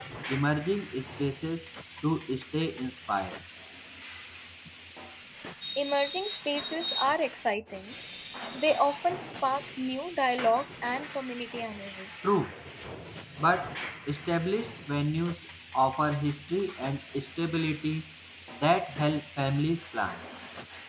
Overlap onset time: none

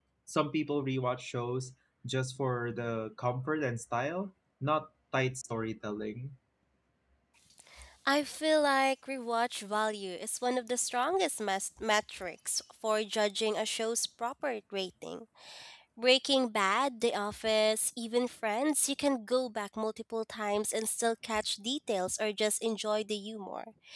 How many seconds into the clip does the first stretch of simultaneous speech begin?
none

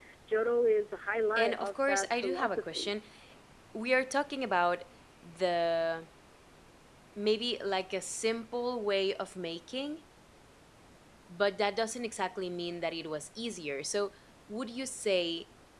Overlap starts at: 1 s

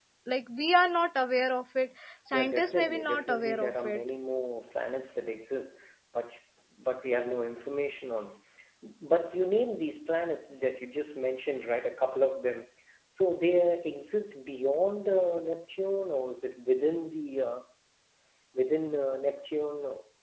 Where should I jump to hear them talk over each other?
2 s

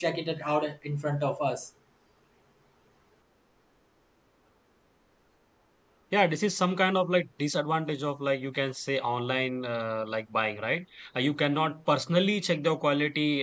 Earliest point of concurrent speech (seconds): none

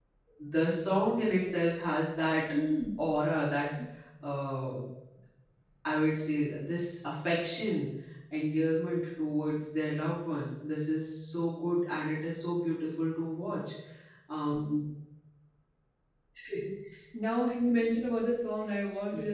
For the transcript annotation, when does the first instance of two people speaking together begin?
none

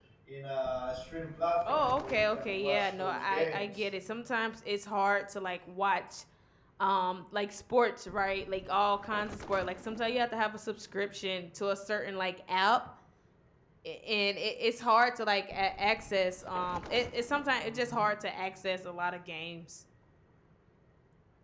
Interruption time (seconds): 2 s

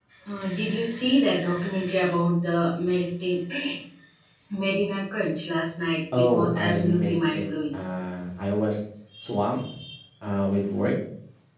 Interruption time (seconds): 6 s

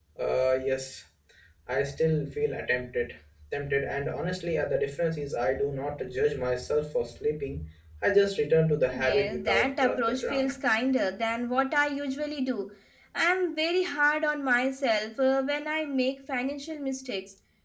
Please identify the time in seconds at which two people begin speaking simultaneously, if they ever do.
9 s

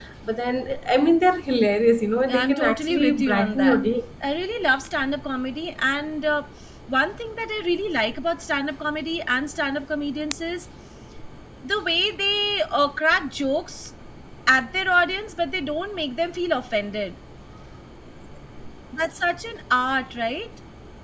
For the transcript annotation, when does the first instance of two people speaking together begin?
2 s

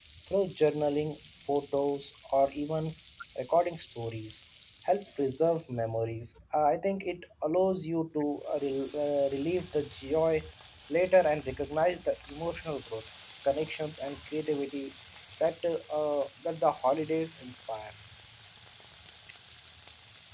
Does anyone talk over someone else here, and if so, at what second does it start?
none

